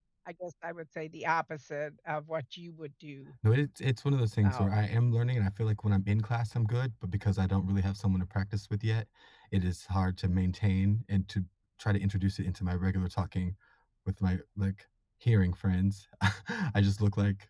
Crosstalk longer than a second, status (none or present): none